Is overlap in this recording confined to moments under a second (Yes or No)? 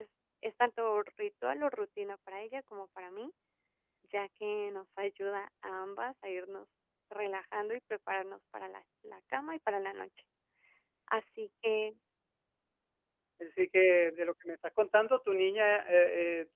Yes